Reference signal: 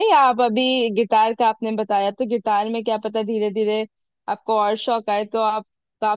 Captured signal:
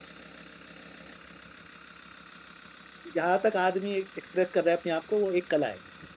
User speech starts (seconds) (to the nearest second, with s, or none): 3 s